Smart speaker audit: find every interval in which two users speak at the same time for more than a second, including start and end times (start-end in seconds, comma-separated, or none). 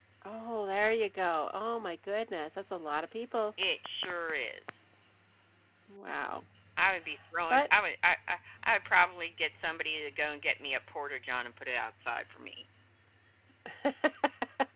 none